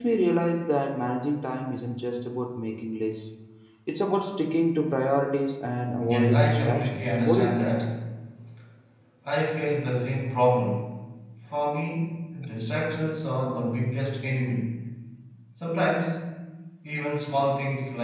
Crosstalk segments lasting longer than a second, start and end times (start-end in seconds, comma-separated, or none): 6.0-7.8